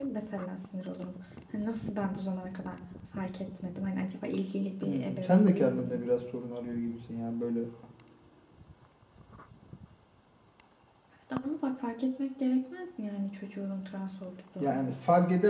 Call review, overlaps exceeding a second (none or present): present